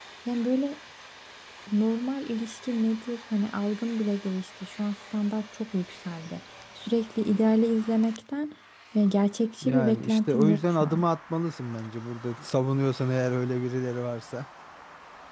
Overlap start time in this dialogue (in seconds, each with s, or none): 9.6 s